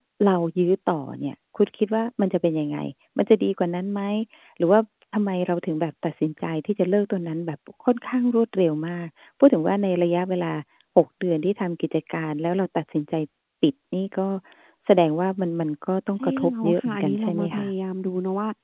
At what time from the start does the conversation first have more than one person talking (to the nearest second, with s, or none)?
16 s